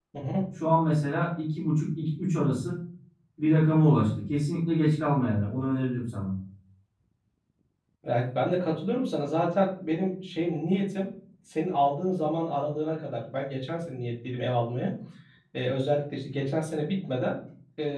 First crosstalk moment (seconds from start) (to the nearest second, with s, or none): none